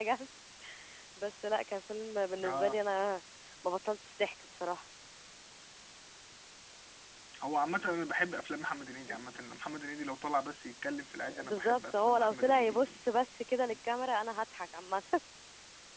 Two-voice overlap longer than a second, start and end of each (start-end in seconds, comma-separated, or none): 11.4-13.0